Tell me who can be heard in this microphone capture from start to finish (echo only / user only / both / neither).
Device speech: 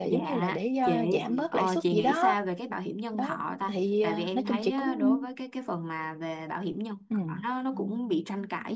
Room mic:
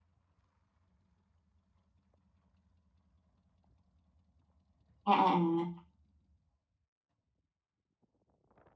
user only